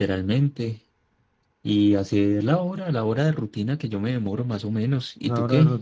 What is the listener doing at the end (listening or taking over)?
taking over